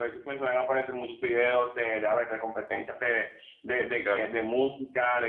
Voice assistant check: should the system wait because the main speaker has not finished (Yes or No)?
Yes